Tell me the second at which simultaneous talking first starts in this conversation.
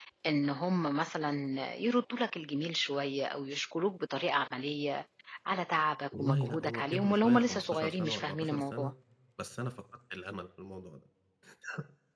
6.1 s

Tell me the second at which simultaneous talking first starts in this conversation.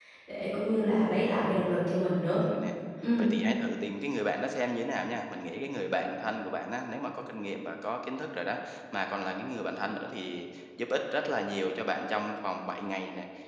none

